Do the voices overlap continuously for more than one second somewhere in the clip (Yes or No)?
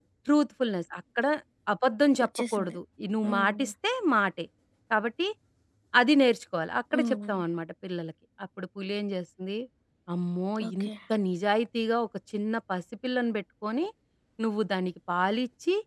No